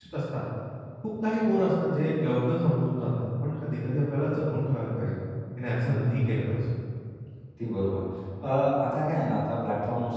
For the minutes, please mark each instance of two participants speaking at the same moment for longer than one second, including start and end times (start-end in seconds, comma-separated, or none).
none